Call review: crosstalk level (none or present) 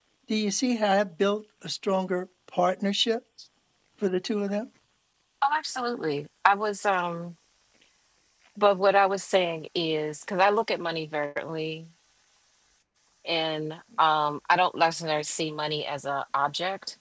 none